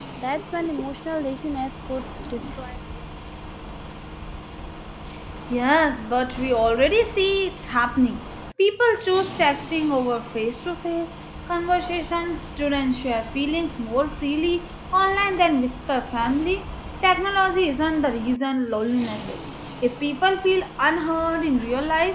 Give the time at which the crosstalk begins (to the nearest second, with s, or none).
none